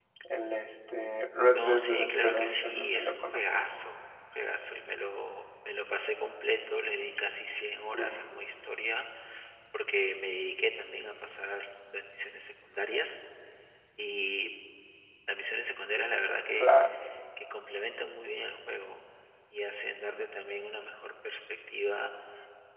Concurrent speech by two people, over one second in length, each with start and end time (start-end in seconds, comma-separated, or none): 1.5-3.5